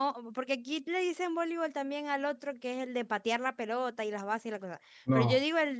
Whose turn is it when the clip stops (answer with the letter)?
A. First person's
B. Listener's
A